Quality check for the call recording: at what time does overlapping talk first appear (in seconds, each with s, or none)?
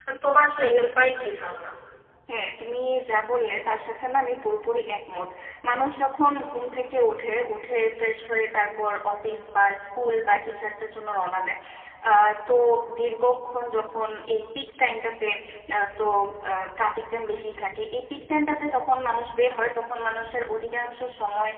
none